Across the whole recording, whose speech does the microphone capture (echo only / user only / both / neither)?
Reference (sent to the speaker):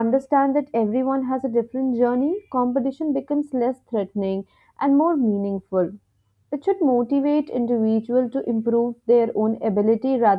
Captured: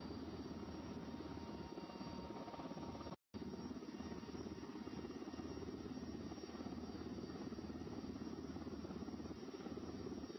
neither